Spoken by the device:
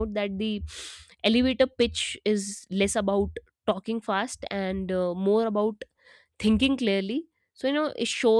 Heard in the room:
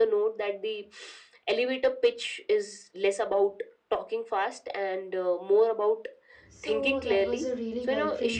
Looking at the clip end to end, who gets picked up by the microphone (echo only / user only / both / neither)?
both